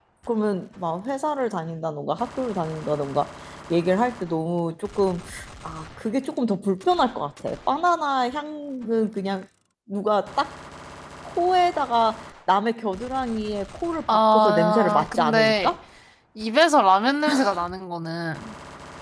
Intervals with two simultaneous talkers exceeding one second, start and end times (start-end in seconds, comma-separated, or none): 14.1-15.7